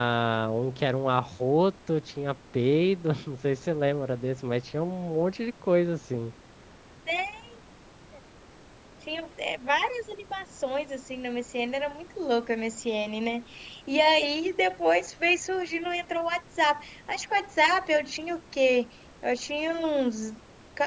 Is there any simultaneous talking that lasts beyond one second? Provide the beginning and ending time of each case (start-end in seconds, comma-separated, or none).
none